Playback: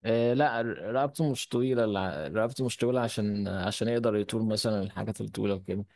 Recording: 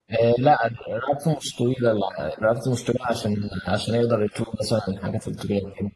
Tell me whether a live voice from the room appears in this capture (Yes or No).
No